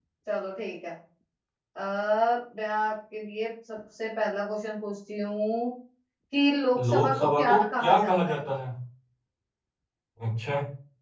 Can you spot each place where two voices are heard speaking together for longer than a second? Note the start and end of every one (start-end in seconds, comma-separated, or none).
6.8-8.4